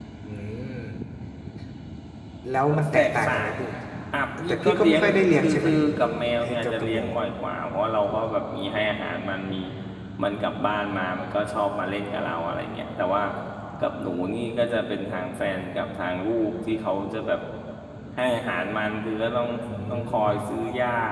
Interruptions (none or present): present